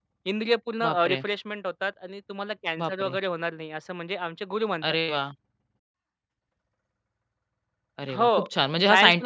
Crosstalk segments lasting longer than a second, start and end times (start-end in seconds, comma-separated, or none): none